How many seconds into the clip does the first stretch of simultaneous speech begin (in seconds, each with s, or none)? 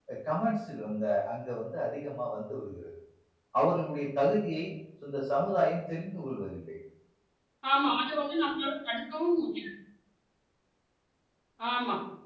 none